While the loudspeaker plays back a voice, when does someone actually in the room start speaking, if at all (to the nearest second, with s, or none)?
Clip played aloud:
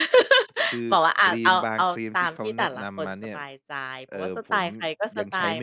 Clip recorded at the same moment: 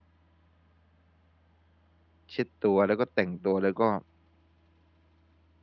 2 s